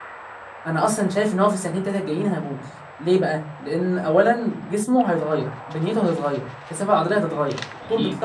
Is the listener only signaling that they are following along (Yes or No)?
Yes